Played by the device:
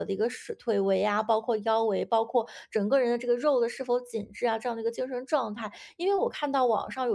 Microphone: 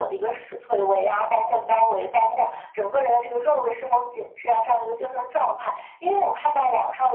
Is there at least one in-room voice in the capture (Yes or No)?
No